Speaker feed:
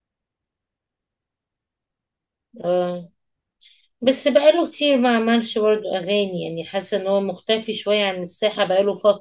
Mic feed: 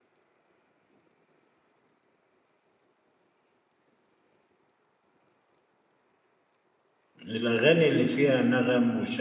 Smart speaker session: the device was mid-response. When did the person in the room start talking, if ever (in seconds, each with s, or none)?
7.2 s